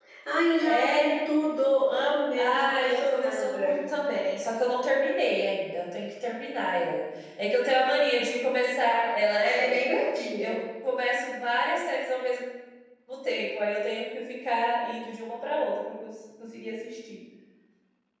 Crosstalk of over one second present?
Yes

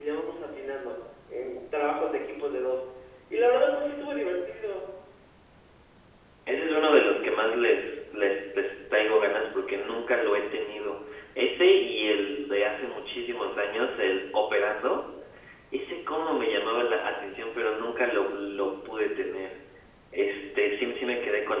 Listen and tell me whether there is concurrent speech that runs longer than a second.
No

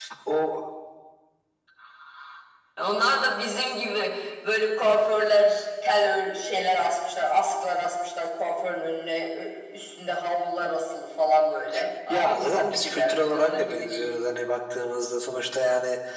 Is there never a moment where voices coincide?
No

